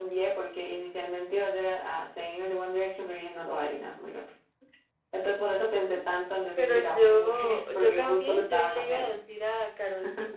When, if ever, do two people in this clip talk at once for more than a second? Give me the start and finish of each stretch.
6.6-9.1

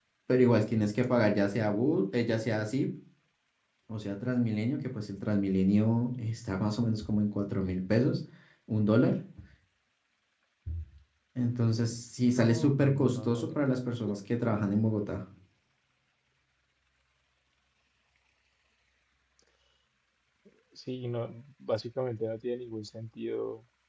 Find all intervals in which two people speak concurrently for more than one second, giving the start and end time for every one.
12.2-13.6

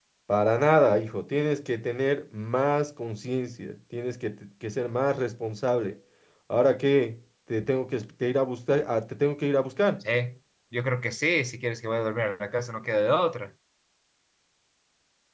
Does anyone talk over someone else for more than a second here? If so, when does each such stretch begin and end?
none

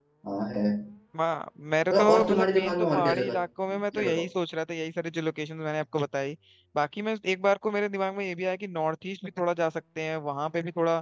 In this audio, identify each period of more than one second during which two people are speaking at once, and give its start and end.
1.9-3.3

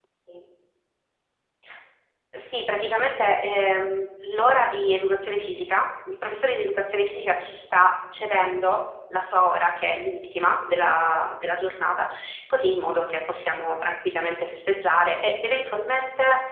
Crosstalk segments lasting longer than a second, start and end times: none

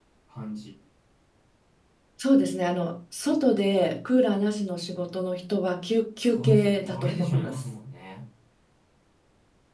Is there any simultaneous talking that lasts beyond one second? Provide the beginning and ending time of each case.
6.2-7.6

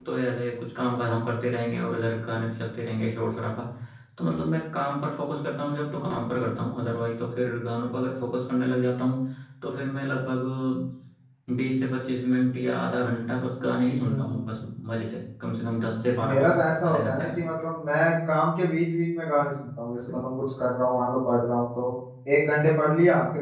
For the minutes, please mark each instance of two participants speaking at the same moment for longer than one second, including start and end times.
16.2-17.4

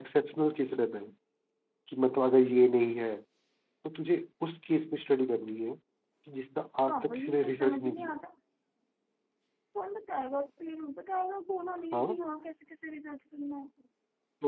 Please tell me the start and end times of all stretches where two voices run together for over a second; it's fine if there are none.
6.9-8.2

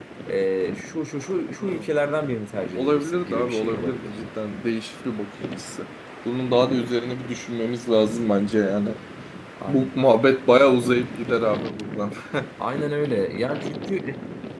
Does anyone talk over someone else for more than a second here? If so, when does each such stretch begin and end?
2.8-4.2

